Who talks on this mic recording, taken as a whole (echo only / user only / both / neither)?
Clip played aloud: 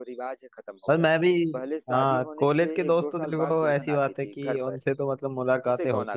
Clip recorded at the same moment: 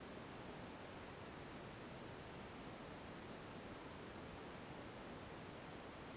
neither